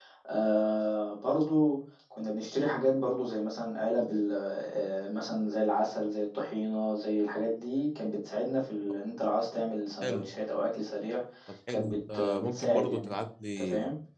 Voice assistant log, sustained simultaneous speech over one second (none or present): present